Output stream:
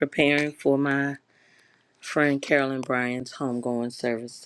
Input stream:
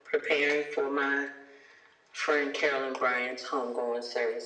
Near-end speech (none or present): none